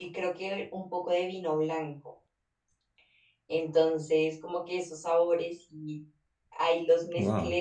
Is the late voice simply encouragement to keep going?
Yes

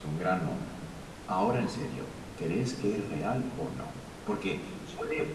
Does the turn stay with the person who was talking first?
Yes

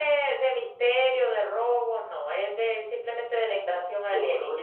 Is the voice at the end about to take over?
Yes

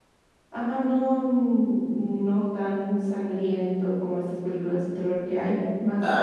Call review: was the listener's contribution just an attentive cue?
No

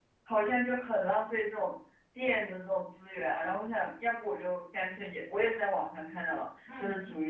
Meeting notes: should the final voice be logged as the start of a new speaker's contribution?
No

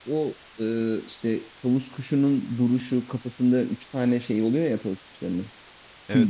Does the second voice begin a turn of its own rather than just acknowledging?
Yes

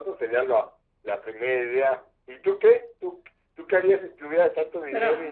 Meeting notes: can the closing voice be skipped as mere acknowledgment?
No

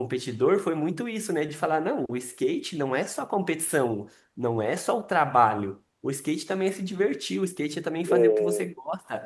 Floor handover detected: No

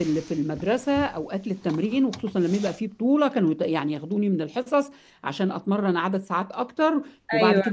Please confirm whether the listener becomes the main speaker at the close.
No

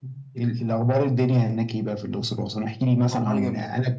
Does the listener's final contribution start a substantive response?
No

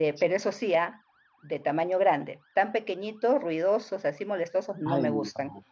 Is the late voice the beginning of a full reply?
Yes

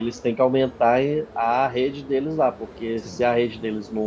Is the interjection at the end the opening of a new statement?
No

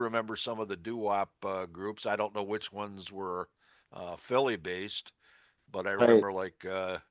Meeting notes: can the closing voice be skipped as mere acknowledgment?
Yes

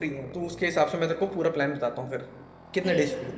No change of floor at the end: No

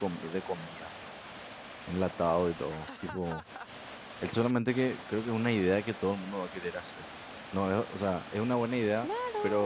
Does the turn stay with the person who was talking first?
No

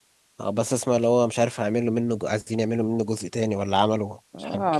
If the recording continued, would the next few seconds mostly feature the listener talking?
Yes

